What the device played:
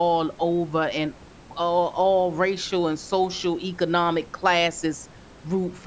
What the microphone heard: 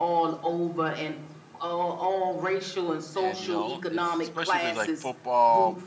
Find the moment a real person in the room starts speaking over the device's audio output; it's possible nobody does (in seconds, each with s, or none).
3.2 s